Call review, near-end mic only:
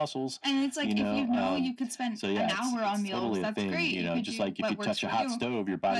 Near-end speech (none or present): none